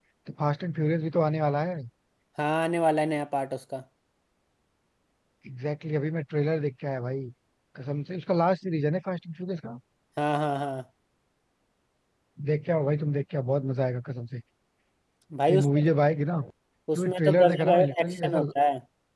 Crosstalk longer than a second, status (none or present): present